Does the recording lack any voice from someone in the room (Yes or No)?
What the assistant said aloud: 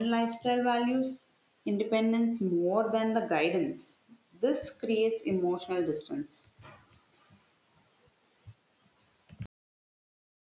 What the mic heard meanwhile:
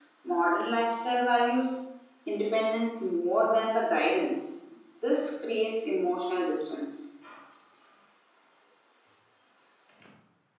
Yes